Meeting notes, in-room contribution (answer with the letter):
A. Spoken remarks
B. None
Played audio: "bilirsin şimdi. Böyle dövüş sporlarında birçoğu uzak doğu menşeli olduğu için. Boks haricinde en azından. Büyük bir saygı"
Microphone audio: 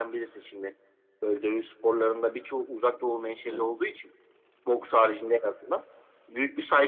A